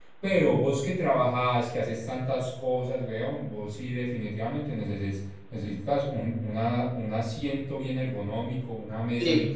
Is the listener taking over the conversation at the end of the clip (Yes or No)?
No